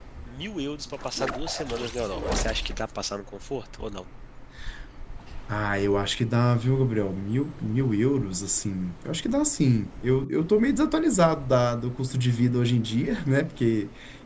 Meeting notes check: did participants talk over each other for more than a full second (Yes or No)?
No